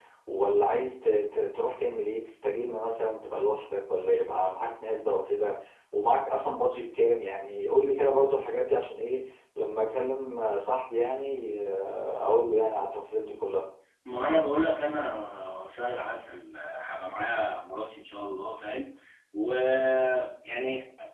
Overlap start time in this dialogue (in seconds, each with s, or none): none